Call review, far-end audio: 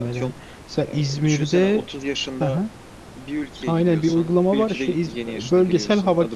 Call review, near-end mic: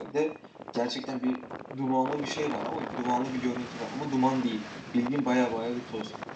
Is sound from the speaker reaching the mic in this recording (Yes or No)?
No